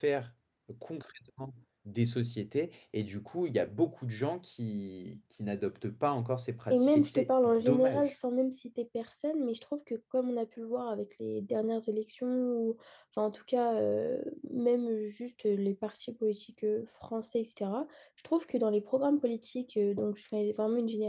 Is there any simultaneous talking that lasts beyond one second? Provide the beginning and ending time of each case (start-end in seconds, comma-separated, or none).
6.7-8.1